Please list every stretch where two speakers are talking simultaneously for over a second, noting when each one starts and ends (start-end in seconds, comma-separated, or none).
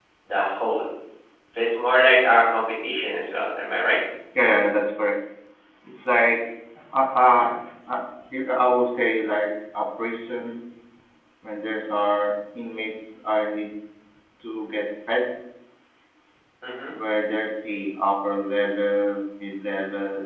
none